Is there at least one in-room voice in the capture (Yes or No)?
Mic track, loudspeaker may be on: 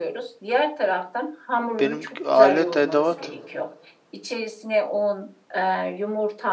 Yes